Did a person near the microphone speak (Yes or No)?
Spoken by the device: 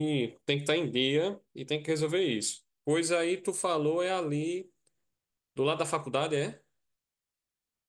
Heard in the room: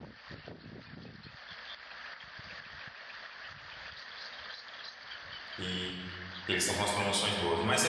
Yes